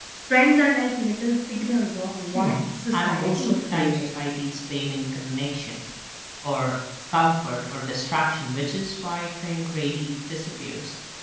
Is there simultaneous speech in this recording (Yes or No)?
Yes